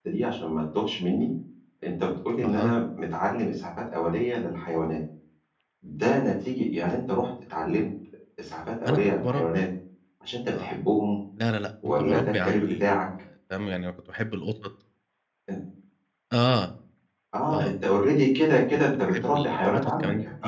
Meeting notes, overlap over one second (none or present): present